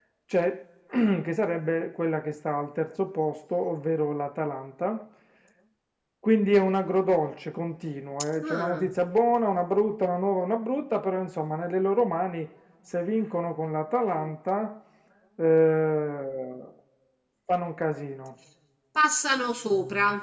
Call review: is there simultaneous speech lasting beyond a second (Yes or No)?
No